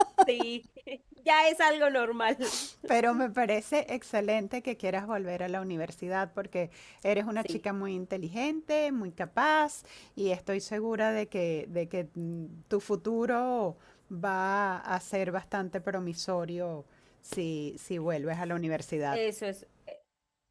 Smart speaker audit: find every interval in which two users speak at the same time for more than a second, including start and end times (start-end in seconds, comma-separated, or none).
none